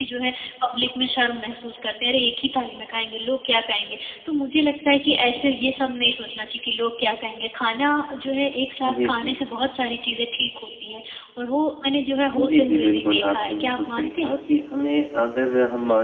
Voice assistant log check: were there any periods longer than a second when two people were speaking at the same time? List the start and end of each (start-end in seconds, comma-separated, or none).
12.3-14.4